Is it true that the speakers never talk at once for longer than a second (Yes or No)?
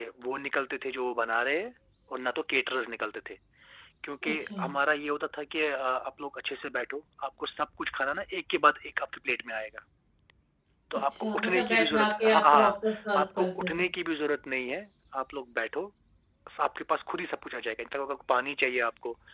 No